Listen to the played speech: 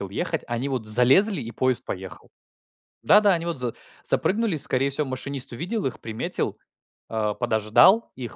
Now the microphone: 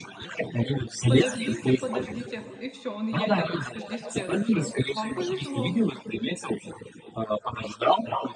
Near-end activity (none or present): present